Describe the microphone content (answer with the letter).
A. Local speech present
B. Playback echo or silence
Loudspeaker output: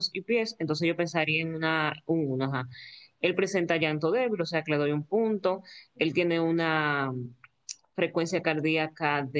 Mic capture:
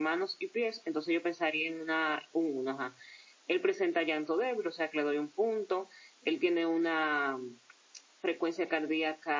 B